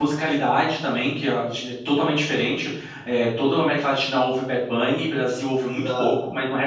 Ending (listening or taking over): listening